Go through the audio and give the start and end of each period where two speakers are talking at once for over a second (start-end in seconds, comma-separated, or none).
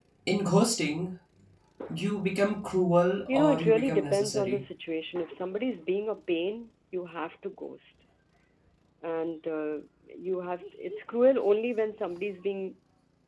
3.3-4.6